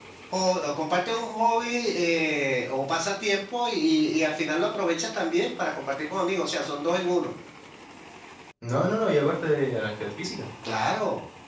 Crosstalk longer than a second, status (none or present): none